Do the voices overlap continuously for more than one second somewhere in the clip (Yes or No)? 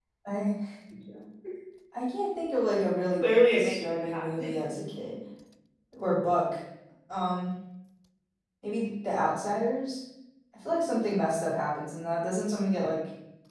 Yes